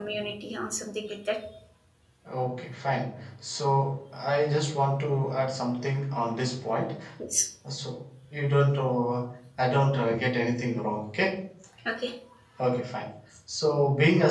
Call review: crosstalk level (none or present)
none